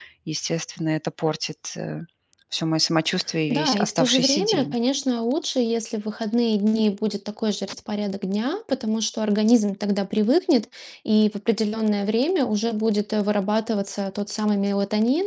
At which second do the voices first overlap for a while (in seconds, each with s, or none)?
3.5 s